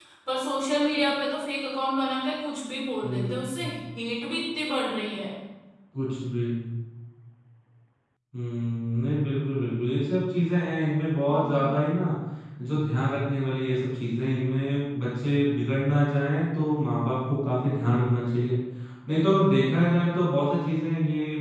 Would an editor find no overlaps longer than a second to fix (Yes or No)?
Yes